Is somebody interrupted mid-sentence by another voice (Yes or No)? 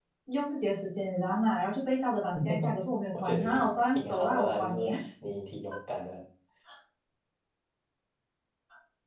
Yes